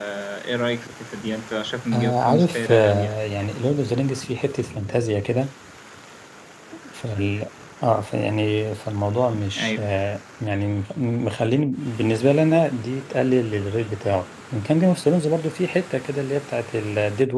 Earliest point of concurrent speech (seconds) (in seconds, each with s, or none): 1.9 s